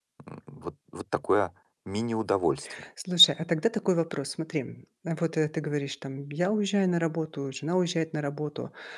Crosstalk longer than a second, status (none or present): none